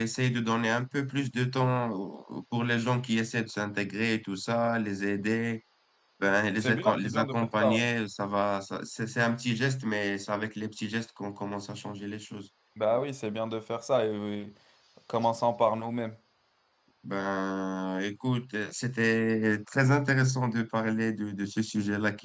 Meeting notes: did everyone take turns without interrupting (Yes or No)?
No